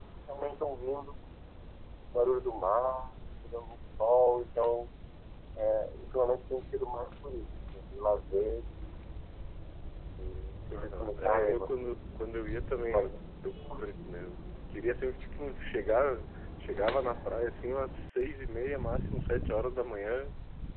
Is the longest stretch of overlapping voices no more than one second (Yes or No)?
No